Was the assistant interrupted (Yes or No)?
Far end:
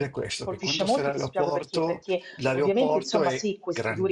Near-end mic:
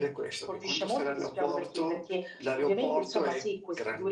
No